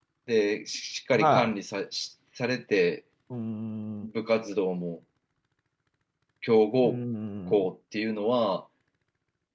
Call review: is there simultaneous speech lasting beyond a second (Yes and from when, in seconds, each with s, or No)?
No